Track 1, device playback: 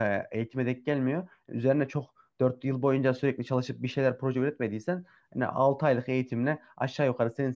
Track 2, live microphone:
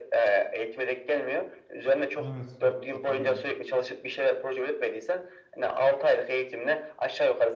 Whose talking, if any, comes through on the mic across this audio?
both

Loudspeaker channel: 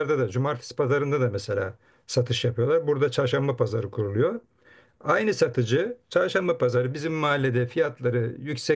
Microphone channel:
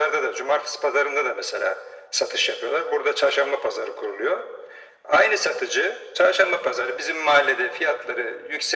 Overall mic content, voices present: echo only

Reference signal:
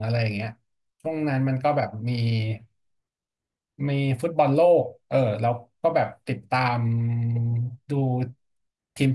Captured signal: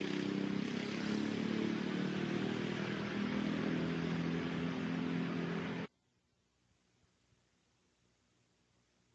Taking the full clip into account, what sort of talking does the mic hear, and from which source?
neither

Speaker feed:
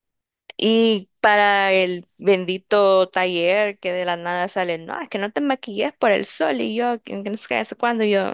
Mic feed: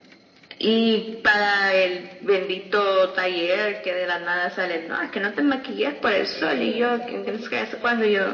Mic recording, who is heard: both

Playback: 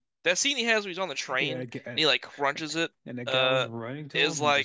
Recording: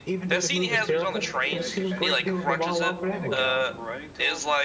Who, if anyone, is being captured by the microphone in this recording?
both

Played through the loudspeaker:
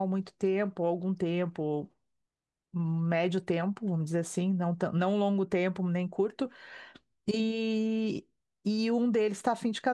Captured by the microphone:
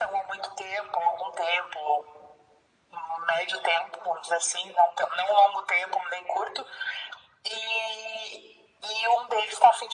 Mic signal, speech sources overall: echo only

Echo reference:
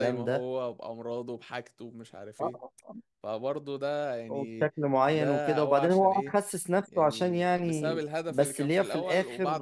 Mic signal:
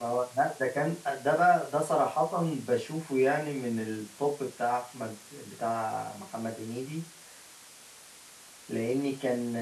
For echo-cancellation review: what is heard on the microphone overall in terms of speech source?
user only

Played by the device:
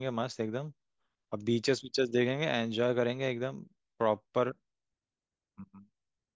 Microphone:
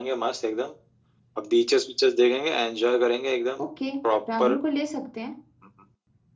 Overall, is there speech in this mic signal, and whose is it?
both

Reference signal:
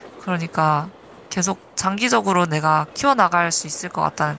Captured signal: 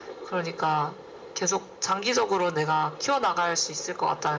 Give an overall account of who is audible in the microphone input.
echo only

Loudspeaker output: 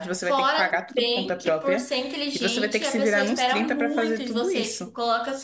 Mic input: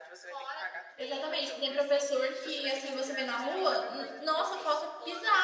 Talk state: both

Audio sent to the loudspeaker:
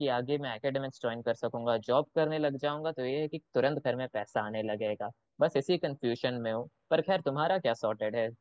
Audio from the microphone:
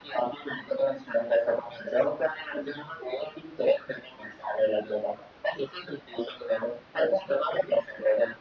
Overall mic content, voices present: echo only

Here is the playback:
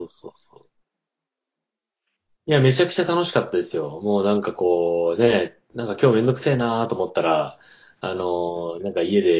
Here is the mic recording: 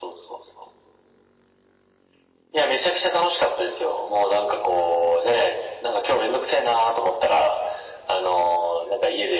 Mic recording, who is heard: echo only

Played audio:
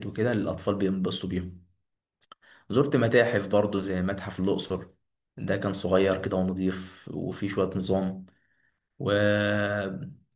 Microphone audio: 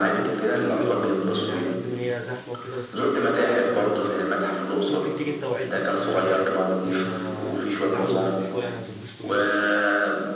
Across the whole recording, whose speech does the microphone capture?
both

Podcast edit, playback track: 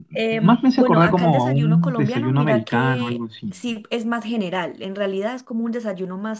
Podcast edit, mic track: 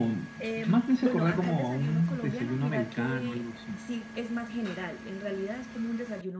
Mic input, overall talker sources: echo only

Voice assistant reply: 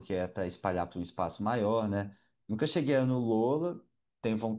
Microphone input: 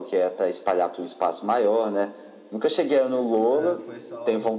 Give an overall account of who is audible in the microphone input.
both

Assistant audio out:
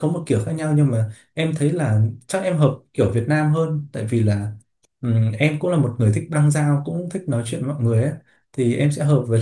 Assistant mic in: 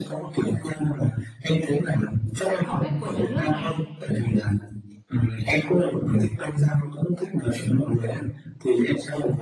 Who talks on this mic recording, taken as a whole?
both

